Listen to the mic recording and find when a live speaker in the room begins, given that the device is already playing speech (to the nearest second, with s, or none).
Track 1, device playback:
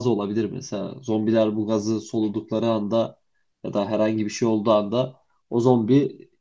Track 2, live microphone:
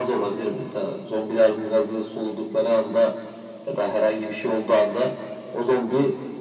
none